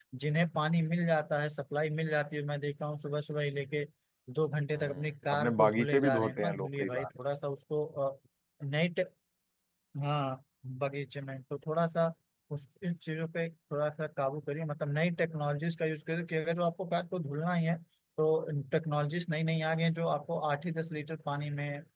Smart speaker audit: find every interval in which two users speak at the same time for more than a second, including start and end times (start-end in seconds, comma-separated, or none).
4.8-7.1